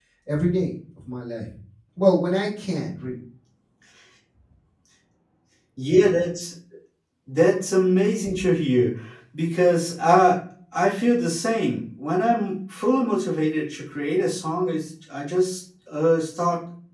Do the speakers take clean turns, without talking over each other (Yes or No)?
Yes